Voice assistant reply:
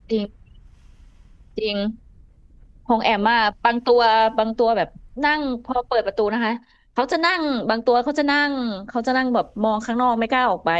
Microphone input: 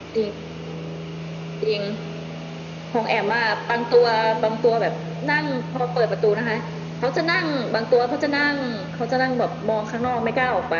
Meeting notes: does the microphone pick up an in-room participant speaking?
No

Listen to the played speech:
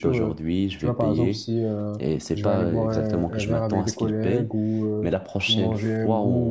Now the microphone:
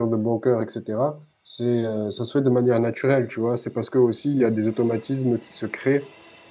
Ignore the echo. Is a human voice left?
Yes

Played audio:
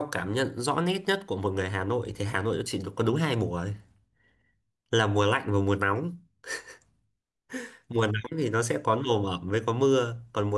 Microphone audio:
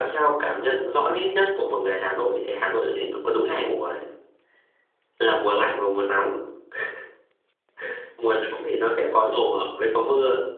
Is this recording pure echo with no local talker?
Yes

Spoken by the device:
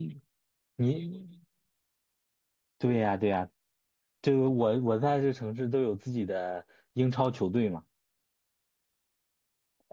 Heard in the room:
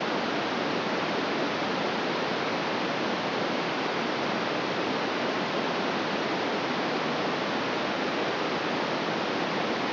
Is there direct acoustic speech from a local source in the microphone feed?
No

